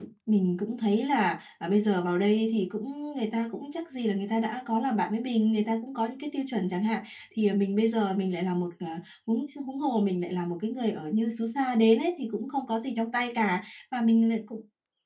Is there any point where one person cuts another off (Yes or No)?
No